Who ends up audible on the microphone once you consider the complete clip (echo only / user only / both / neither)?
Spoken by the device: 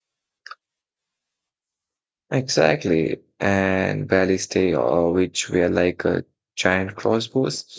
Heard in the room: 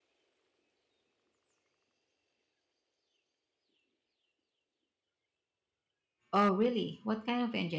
user only